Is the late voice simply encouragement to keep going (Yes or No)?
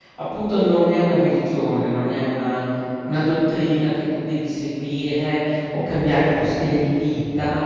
Yes